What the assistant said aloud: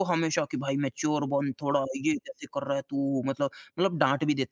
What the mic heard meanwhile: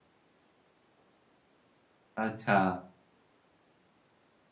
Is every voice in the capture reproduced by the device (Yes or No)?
No